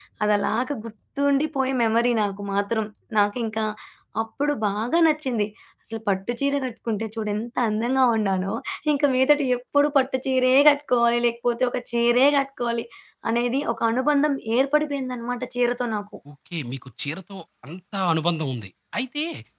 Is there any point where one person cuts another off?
No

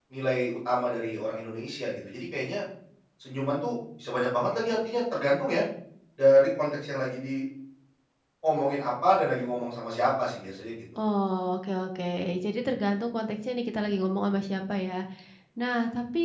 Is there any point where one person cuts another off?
No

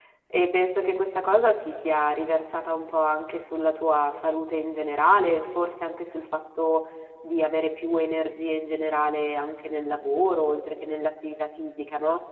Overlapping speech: No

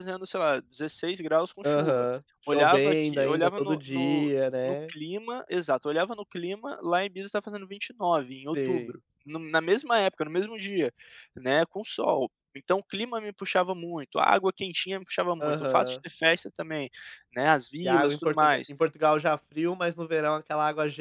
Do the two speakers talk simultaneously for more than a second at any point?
Yes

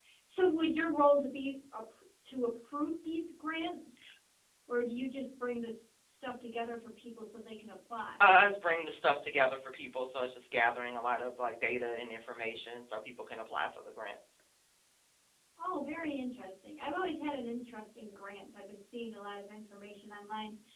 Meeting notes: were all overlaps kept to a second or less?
Yes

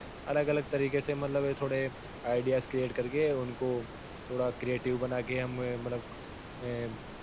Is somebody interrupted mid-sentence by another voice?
No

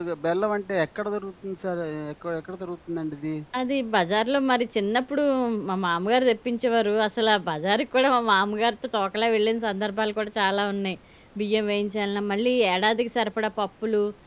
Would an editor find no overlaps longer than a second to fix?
Yes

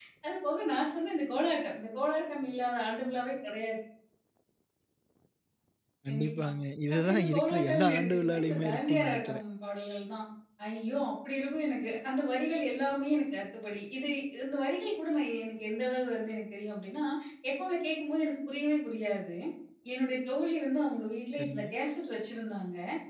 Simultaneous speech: Yes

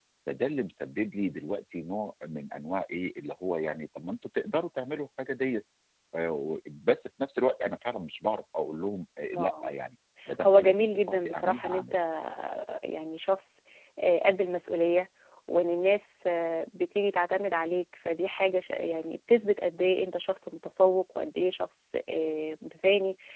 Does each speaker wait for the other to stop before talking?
No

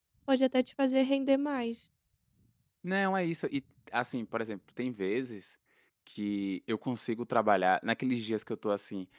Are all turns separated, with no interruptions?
Yes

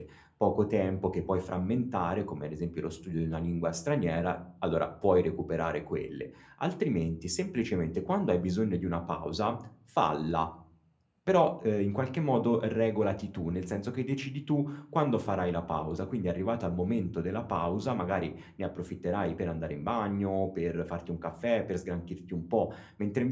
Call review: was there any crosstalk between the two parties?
No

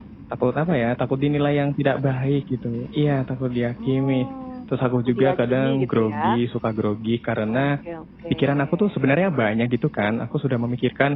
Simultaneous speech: Yes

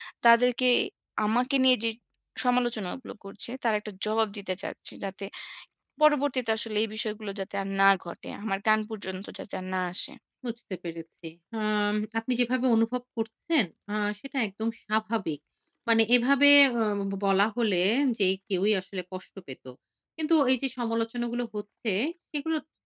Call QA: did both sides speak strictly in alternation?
Yes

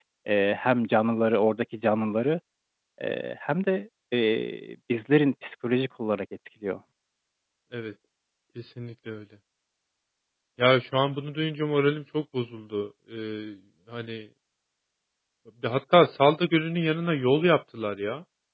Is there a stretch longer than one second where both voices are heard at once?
No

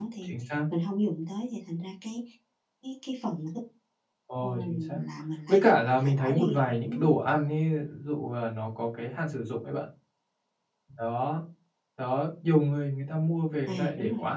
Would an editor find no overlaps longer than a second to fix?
No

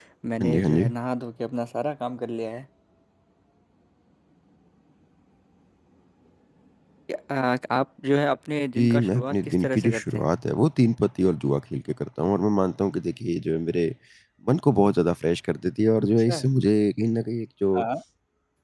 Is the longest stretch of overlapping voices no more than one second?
No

